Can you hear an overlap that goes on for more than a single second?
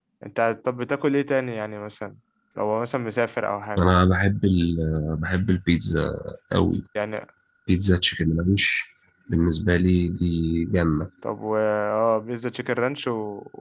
No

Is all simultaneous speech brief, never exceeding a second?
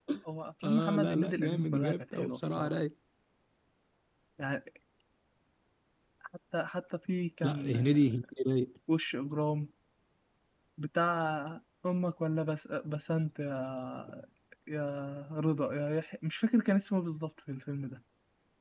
No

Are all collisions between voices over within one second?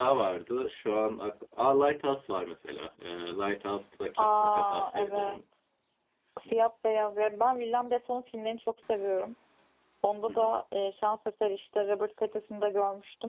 No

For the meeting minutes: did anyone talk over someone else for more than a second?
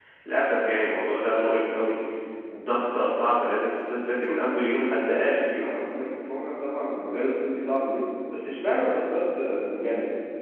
No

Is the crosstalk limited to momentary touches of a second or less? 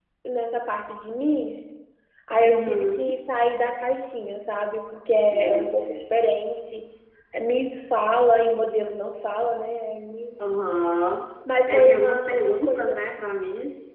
No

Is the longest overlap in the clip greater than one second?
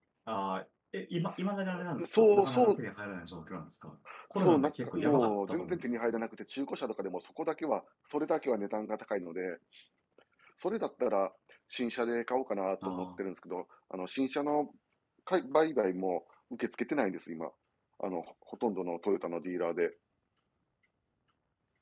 Yes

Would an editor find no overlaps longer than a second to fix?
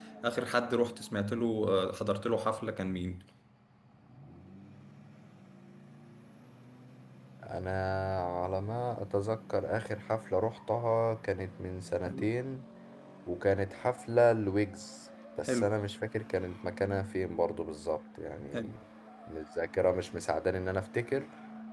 Yes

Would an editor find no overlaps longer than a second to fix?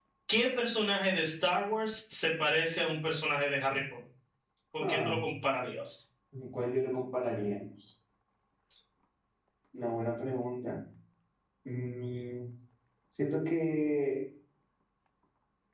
Yes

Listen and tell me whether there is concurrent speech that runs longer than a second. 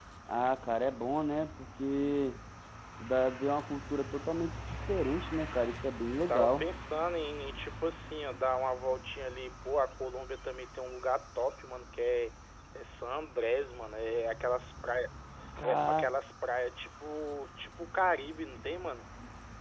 No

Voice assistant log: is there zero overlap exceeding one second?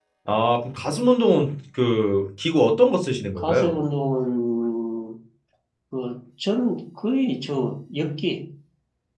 Yes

